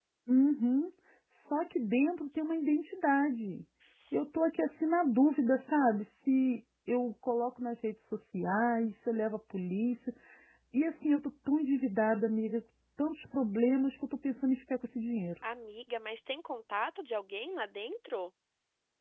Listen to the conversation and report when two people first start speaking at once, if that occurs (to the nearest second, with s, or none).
none